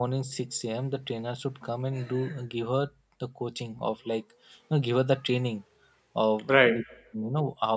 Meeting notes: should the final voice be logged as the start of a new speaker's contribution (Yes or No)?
No